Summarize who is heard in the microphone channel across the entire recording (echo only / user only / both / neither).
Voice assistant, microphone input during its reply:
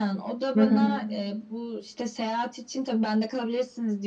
both